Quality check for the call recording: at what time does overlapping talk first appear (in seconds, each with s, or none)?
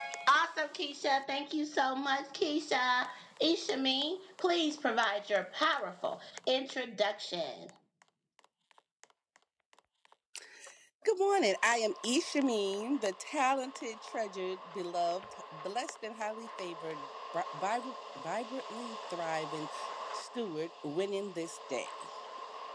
none